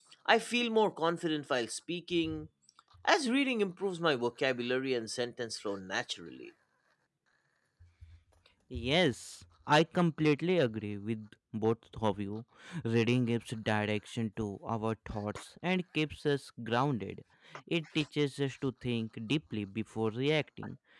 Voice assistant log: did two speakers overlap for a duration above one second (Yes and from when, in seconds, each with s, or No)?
No